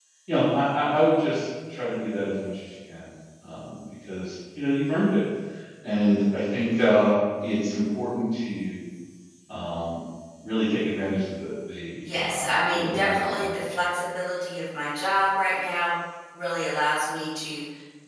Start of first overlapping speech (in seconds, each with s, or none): 12.0 s